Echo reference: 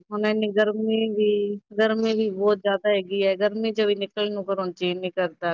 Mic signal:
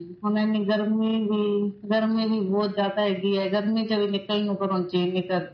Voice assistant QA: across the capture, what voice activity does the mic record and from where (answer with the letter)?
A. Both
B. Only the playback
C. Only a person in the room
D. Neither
B